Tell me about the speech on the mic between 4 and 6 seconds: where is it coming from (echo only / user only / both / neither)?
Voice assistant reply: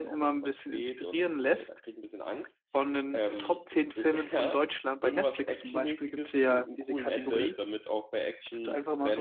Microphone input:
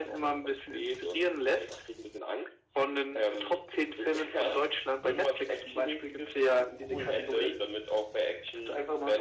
echo only